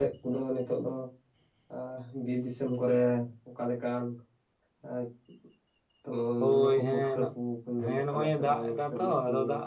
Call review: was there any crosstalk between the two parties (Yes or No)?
Yes